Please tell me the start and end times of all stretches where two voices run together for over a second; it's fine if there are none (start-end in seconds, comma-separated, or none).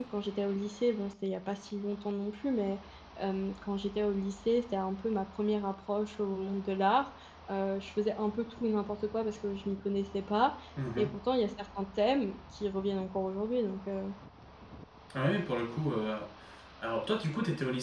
none